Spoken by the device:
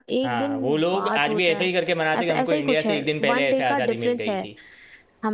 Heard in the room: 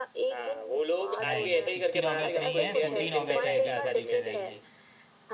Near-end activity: present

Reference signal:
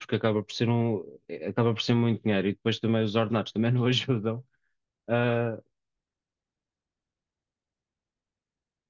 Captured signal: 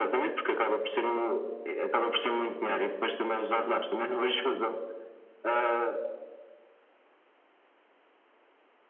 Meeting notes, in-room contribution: none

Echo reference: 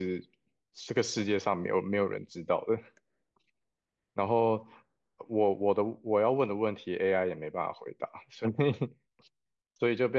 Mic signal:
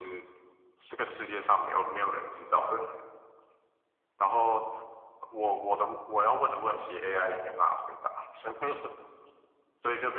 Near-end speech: none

